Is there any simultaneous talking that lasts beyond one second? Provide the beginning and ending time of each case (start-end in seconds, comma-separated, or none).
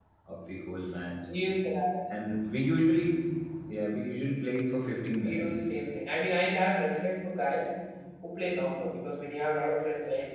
none